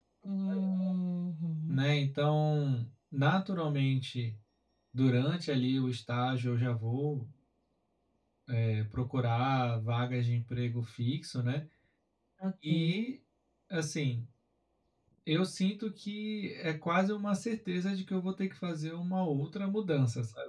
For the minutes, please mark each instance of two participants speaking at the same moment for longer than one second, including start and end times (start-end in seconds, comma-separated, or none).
none